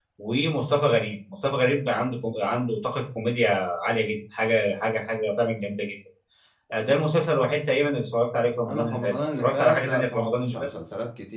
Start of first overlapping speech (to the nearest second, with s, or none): 9 s